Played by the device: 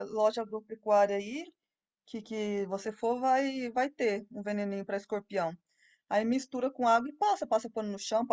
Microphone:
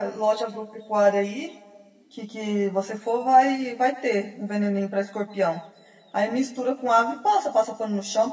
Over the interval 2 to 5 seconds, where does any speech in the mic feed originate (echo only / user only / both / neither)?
echo only